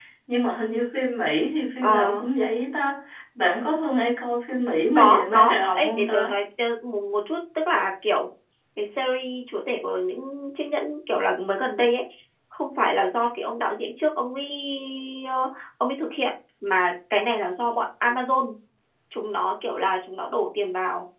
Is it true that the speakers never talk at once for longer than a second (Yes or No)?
No